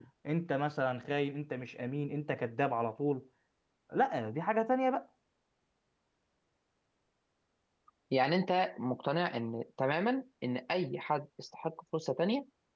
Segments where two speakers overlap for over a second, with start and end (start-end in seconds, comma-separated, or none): none